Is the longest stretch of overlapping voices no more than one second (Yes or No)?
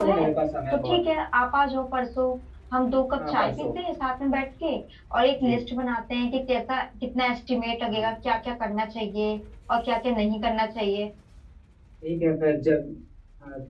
Yes